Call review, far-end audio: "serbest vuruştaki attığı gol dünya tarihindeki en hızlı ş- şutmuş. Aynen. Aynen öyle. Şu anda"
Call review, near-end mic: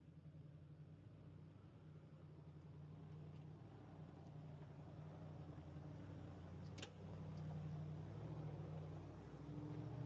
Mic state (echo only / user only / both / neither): neither